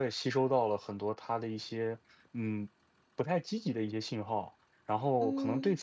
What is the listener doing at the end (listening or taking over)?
listening